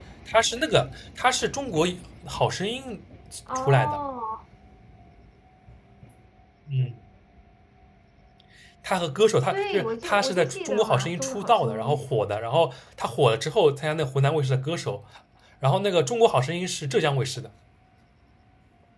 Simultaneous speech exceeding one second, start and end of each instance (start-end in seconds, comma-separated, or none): 9.5-11.7